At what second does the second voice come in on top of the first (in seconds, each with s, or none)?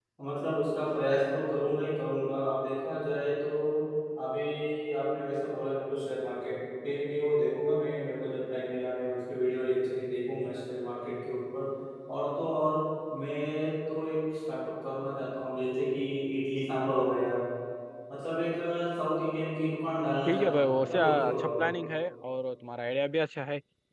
20.2 s